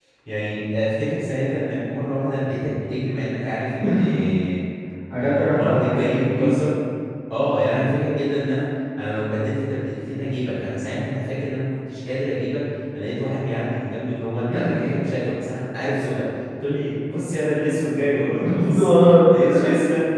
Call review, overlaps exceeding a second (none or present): present